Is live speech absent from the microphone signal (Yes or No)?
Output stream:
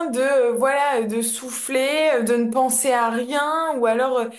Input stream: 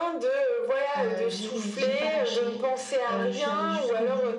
No